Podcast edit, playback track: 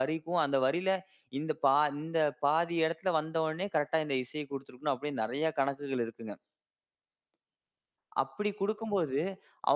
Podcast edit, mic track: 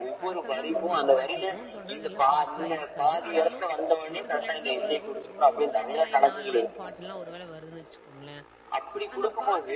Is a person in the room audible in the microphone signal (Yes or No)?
Yes